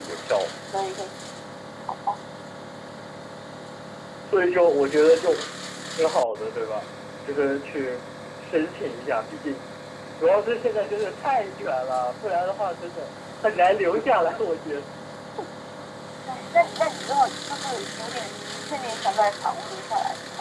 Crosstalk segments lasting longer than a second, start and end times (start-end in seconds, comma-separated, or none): none